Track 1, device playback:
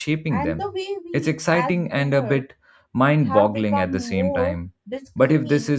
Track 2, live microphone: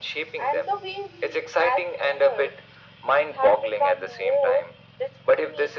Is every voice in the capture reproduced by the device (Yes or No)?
Yes